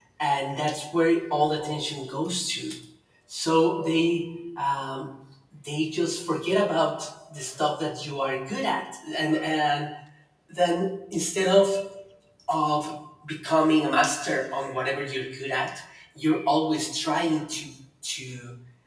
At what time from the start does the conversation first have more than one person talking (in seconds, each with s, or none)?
none